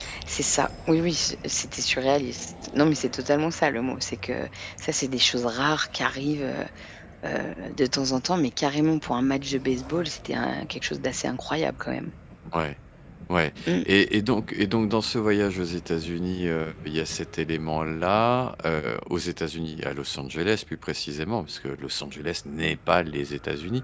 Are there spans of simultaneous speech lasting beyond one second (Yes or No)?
No